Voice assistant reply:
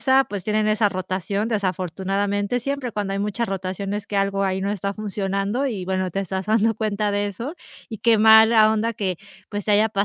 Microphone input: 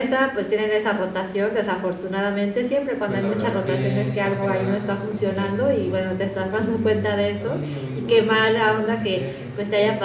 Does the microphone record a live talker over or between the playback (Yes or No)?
Yes